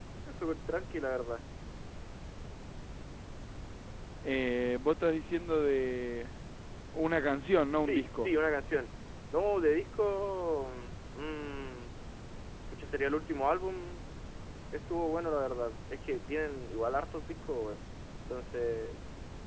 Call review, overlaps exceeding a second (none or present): none